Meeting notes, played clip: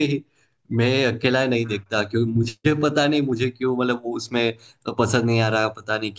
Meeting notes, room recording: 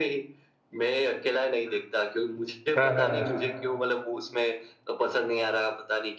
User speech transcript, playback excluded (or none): हाँ हाँ हाँ,